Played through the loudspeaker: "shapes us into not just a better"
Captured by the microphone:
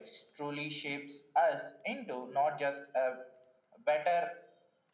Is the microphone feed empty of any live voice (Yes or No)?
Yes